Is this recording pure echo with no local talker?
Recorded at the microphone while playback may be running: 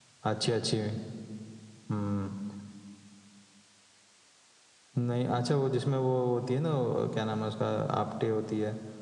Yes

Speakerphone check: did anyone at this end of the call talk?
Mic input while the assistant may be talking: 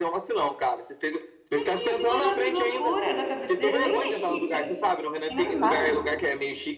Yes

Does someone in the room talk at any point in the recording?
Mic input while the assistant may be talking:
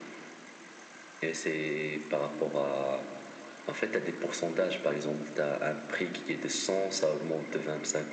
No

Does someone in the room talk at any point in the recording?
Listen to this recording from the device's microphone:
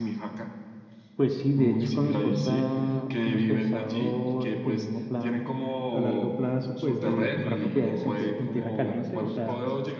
Yes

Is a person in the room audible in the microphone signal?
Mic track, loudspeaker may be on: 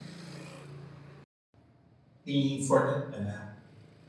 Yes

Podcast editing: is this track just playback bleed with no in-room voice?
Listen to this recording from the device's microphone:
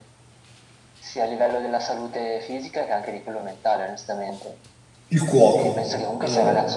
No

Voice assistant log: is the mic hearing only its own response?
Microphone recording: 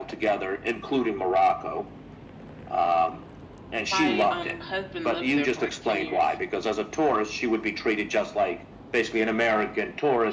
No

